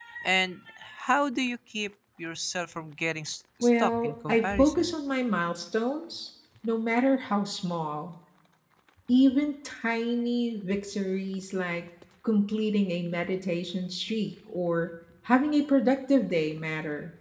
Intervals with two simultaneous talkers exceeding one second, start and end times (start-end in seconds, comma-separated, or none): 3.6-4.9